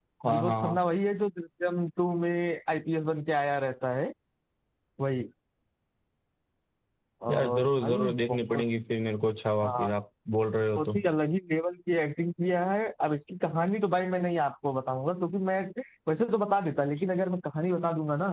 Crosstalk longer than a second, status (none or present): present